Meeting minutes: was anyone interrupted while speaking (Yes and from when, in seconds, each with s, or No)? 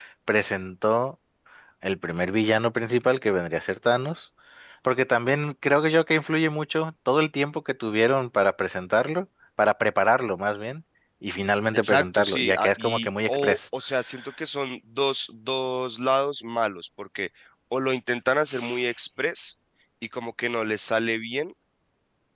Yes, from 11.7 s